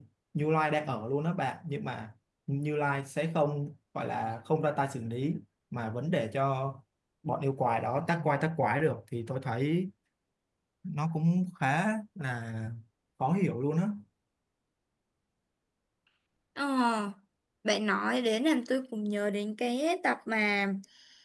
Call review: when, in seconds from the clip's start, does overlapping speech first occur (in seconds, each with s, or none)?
none